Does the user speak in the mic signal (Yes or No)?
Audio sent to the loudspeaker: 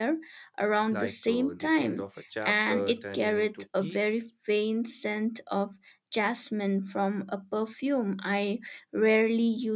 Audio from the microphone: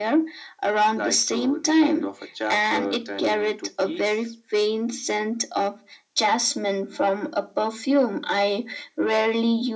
No